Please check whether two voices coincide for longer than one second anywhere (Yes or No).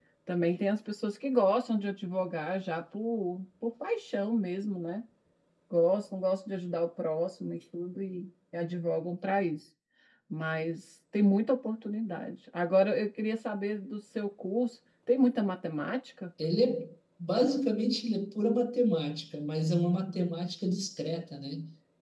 No